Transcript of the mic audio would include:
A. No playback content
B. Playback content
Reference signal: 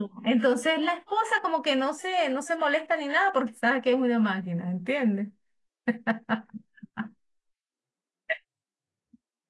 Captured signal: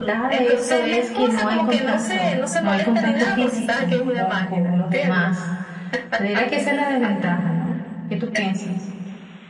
B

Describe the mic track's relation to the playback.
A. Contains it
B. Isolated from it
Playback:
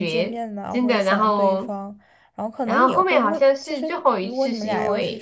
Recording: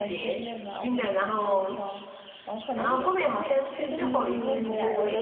A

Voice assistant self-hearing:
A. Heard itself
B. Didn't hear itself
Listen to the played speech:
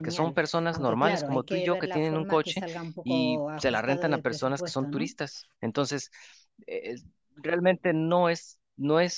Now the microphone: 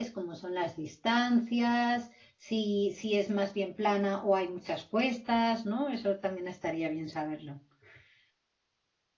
B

